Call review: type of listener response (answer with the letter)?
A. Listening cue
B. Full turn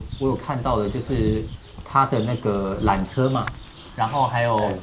A